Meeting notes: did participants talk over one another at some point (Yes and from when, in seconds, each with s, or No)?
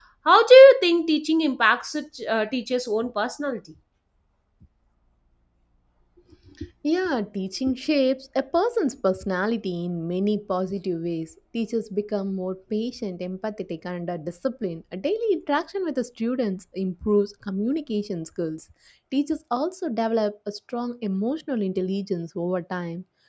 No